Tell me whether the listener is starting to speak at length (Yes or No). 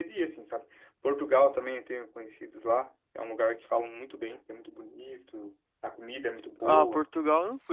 Yes